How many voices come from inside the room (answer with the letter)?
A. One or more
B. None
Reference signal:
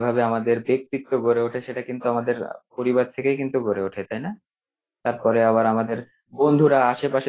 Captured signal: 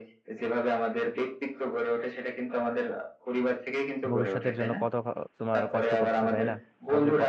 A